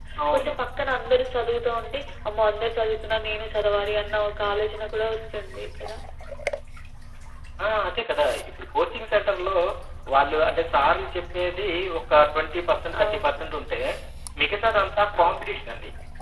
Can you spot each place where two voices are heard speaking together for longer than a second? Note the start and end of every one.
none

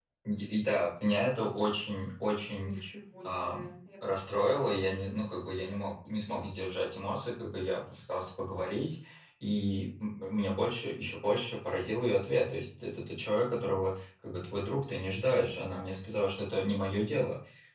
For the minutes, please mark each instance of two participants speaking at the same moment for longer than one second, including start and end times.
none

